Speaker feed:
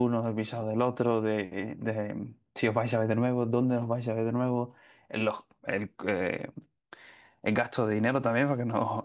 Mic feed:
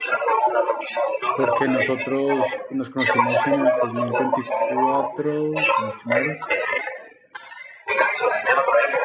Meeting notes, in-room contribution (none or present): present